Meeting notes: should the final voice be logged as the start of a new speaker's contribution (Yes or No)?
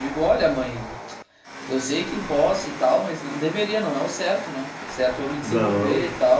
No